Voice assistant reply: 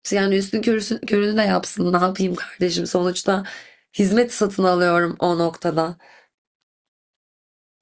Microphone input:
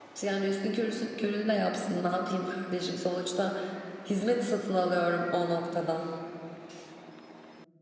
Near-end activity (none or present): none